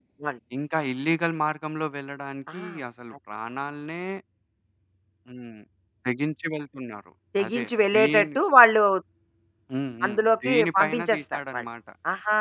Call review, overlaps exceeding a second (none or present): present